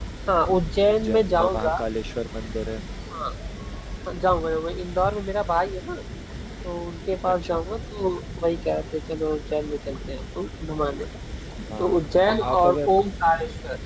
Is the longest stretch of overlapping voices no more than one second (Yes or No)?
No